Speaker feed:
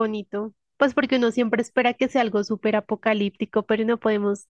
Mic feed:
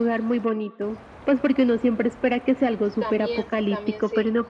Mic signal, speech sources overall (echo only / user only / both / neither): both